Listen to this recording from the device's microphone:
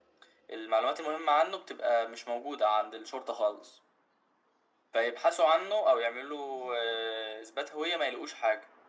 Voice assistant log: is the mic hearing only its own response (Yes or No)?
Yes